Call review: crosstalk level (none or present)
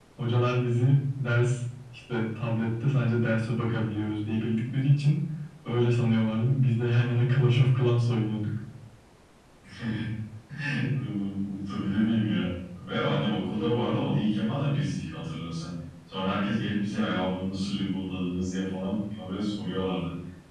none